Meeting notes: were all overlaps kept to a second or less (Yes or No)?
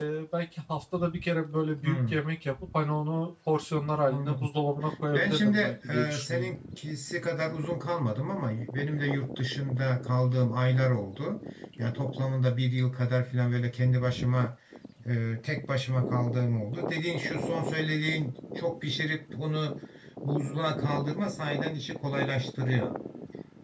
No